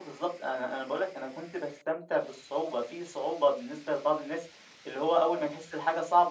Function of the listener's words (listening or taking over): listening